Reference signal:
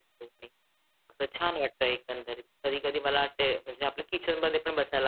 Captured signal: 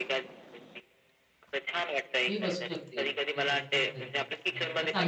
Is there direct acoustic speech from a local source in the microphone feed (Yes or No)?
Yes